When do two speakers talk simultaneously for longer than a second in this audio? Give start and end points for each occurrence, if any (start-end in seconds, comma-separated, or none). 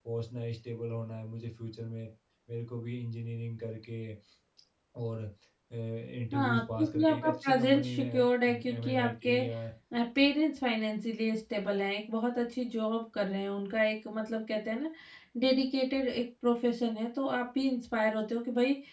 6.3-9.4